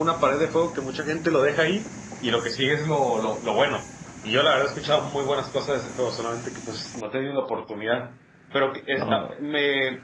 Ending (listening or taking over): listening